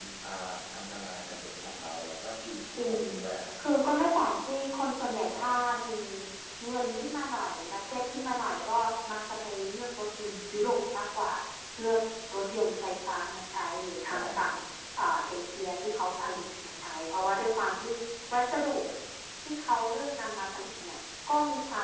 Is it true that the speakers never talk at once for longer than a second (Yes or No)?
Yes